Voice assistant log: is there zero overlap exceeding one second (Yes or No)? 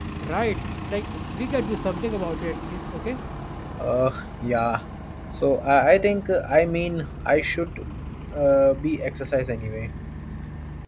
Yes